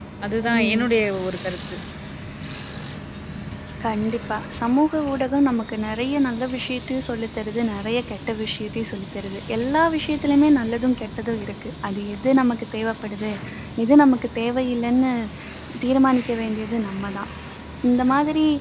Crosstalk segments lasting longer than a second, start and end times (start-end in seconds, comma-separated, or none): none